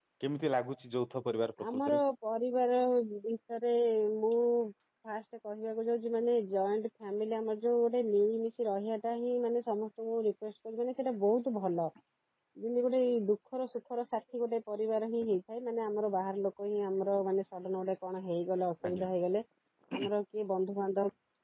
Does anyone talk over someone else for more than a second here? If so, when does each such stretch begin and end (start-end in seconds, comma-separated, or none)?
none